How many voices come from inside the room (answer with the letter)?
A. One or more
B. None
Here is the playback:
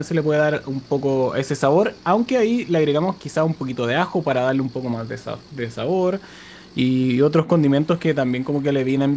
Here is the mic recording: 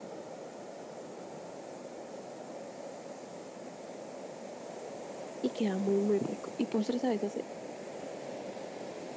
A